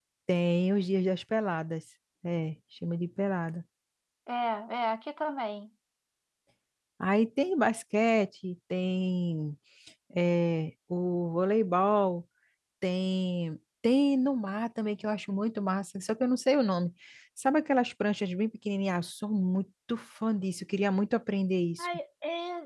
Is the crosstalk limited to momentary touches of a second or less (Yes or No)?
Yes